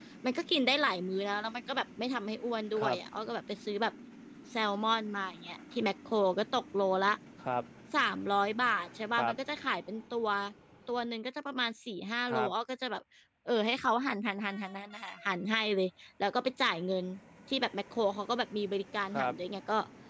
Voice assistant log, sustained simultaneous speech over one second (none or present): none